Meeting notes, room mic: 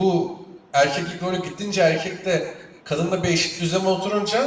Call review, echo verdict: none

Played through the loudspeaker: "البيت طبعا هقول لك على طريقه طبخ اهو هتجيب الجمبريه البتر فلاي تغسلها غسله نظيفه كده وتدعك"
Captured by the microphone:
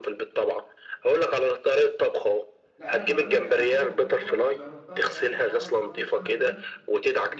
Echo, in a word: present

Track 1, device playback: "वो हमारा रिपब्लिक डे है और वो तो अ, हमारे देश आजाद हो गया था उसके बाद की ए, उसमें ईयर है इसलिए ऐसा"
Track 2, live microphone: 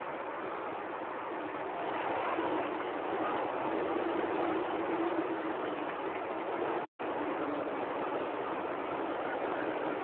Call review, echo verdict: none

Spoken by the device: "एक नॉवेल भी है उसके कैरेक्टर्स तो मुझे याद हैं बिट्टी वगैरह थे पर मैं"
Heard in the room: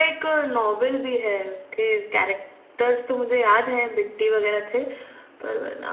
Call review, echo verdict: present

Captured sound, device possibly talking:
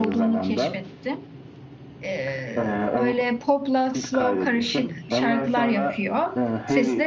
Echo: present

